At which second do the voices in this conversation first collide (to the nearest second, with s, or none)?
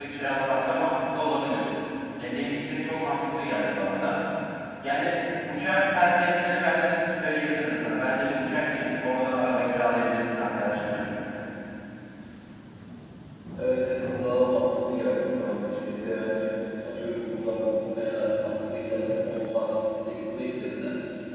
none